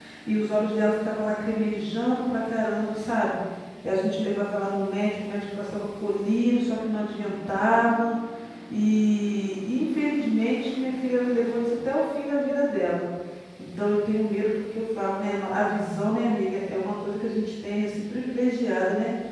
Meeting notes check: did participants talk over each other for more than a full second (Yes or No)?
No